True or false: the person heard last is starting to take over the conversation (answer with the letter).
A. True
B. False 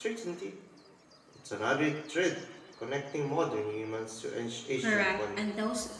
A